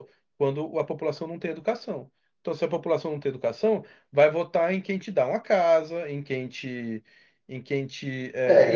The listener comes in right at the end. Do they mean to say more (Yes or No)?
Yes